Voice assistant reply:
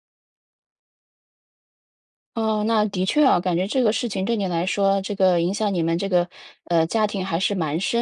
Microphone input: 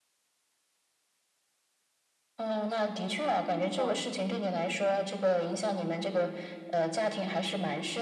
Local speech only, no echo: 哦。

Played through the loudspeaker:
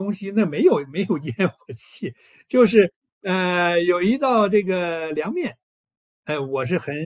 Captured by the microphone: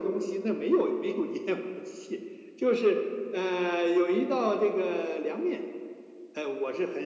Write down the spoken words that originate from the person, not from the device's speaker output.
none

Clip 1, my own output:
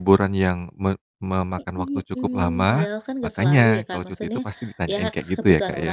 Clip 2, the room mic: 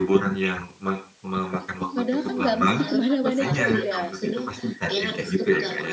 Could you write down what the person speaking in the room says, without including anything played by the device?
padahal kan nggak mesti kemana-mana juga.

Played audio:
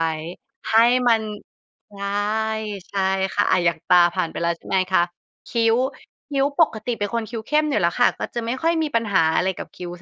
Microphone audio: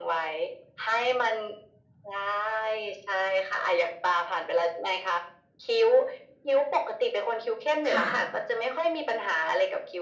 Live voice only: ค่ะ

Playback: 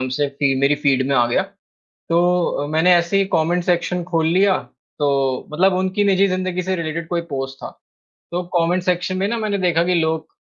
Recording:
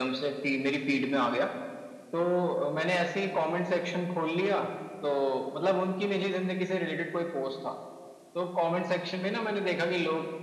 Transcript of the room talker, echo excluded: none

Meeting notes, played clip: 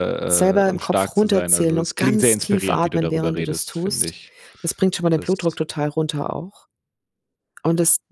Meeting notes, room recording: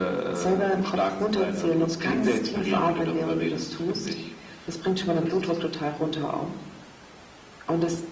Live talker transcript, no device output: none

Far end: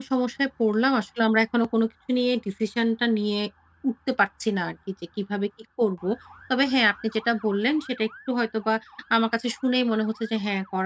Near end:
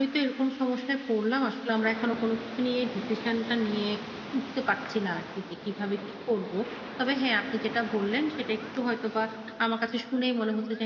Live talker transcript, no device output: none

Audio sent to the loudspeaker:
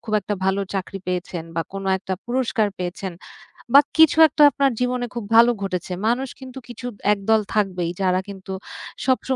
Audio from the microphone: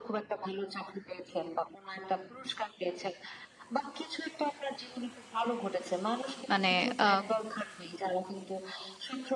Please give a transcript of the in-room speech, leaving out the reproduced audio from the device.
মানে আ

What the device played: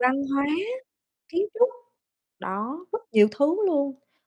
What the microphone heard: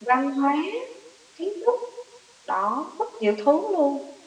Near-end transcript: none

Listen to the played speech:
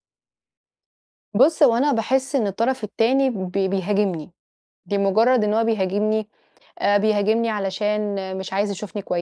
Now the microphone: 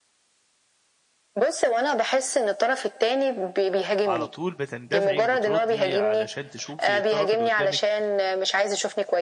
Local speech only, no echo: على طول بتندفعي وبتردّي علشان تشوفي الطرف اللي قدّامِك

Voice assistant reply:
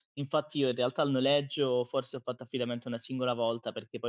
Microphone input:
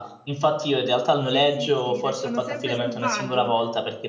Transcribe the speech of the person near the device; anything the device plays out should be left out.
Sì, sì, sì, restano sempre sul vago.

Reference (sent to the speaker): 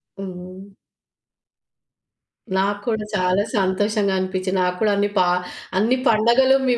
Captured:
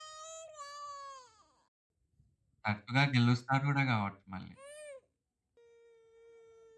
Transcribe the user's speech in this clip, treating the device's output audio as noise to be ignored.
తరచుగా గెలుస్తారు గూడా గావచ్చు మళ్ళీ!

